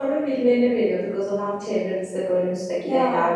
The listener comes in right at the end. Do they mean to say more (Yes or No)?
No